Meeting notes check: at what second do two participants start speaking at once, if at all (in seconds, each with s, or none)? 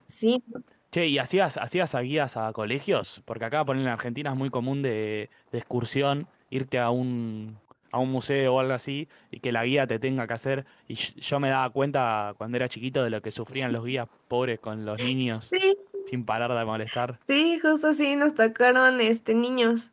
none